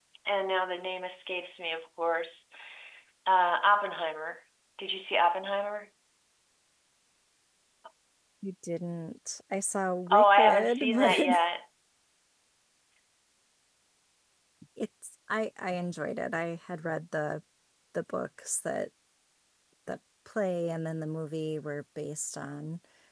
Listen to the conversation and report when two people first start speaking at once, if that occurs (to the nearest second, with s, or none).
10 s